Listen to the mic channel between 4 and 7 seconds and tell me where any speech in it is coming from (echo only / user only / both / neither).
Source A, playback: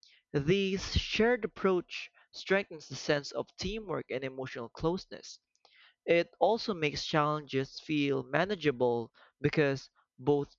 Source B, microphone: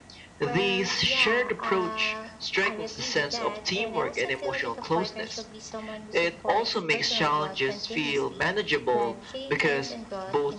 both